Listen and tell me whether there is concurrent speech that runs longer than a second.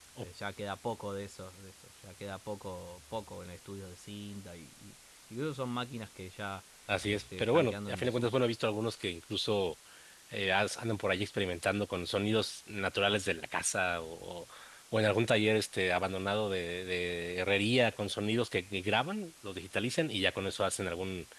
Yes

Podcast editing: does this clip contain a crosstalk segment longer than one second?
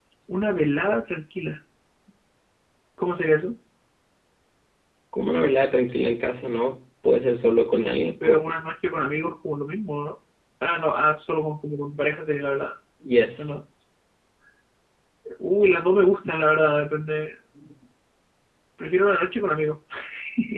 No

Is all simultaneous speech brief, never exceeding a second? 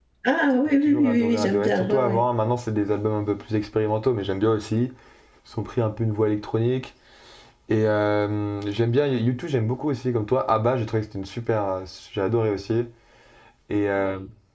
No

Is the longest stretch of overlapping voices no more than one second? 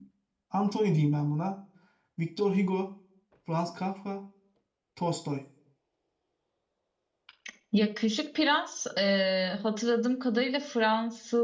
Yes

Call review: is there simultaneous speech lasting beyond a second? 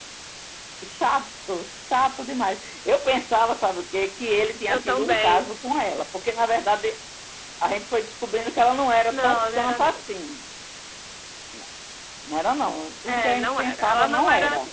Yes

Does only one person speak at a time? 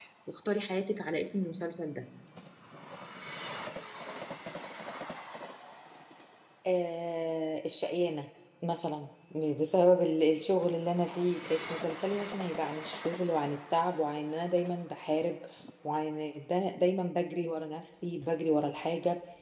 Yes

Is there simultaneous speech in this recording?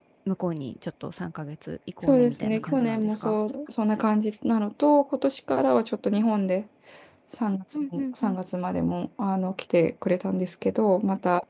Yes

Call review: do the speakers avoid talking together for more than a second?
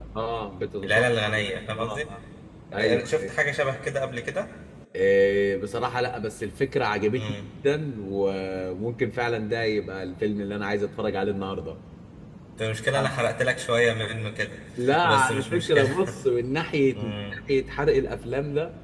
No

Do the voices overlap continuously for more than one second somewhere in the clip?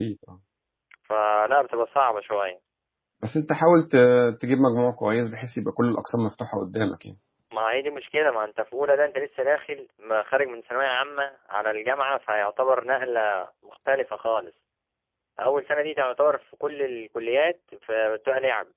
No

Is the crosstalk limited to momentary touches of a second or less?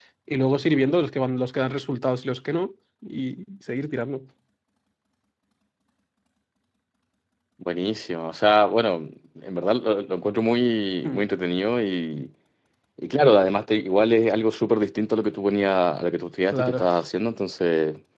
Yes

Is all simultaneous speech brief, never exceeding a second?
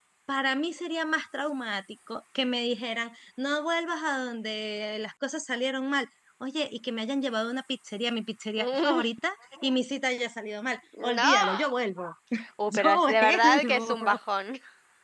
No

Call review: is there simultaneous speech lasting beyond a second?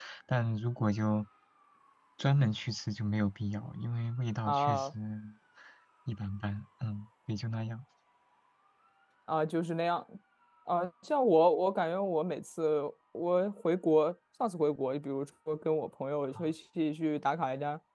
No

